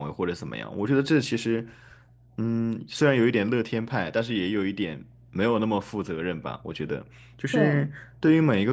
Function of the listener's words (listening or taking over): listening